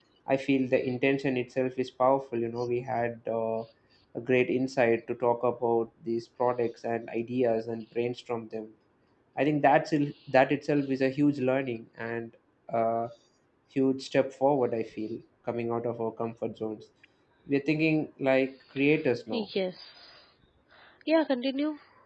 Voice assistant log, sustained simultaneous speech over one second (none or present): none